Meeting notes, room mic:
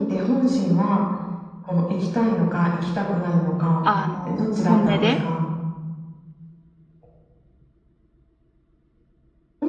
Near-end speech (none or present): present